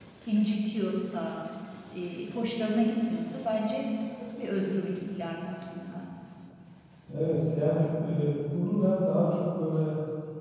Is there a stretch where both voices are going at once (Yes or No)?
No